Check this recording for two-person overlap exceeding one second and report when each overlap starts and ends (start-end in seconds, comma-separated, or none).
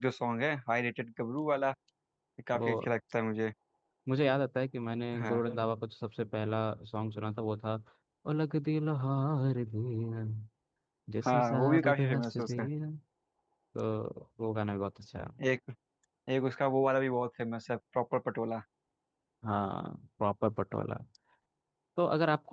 11.2-12.7